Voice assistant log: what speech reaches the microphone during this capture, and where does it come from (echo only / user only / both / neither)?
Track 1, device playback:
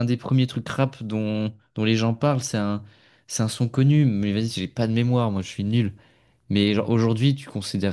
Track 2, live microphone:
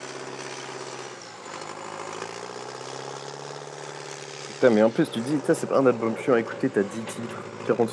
user only